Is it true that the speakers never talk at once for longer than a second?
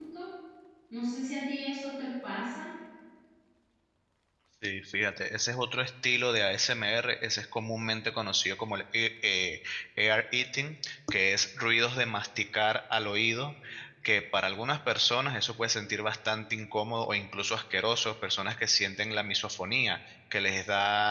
Yes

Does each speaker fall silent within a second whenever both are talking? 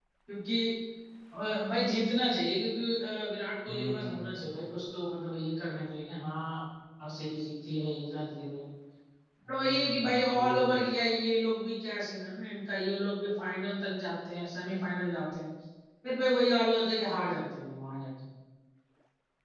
No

